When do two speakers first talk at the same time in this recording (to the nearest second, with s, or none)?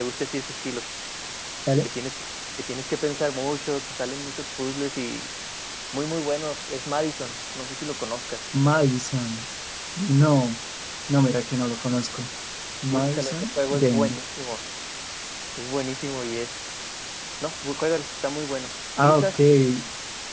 13 s